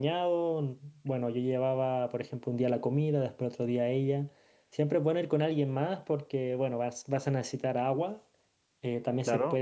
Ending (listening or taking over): listening